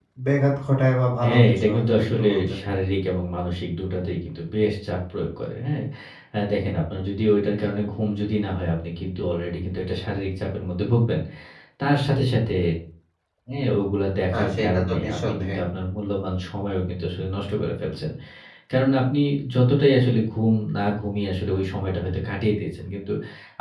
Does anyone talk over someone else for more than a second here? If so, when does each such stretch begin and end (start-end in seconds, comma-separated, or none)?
1.2-2.6, 14.3-15.6